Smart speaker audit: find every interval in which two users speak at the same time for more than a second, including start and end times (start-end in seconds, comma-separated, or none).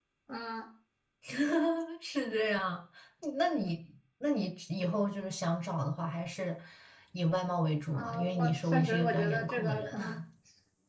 7.9-9.9